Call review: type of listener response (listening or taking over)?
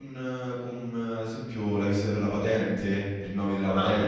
listening